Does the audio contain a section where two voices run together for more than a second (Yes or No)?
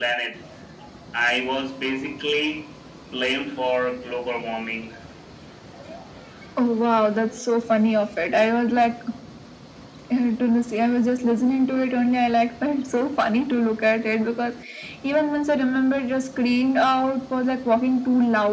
No